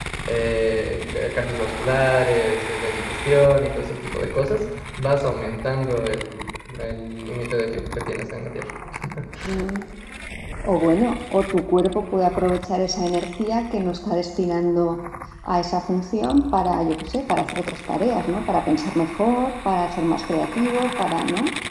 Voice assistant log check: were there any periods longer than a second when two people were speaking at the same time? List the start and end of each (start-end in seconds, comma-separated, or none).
none